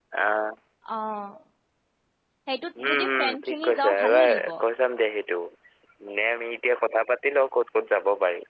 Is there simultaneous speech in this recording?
Yes, from 2.8 s

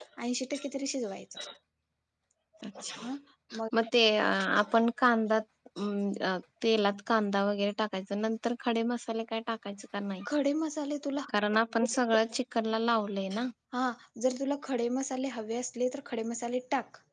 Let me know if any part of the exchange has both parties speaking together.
No

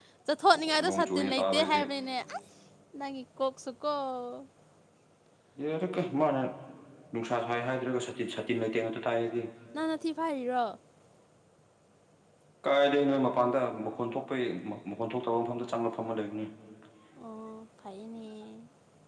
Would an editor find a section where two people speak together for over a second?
Yes, from 0.6 s

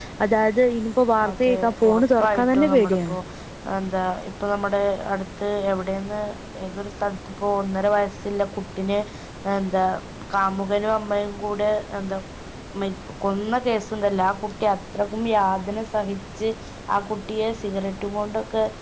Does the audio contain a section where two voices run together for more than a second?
Yes, from 1.3 s

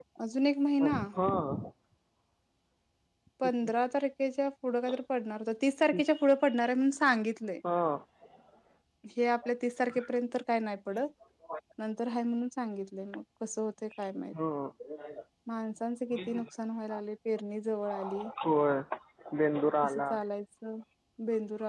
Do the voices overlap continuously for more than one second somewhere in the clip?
No

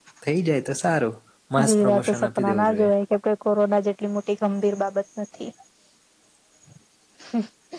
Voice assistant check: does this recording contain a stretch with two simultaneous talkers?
Yes, from 1.6 s

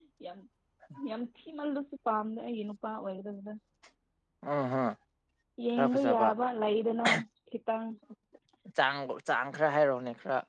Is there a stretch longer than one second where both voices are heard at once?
No

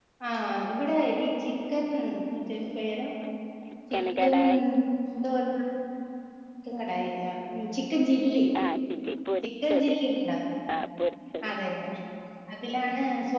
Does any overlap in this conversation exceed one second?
No

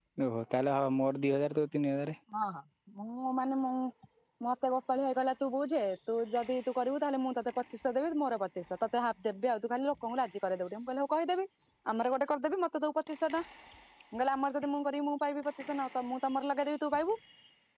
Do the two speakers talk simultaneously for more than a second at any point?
No

